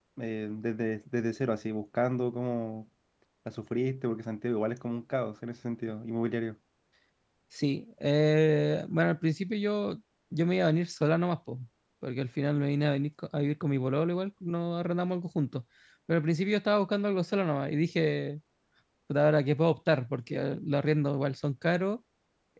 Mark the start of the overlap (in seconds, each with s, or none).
none